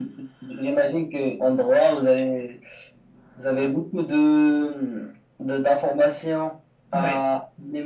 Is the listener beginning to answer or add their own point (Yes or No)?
No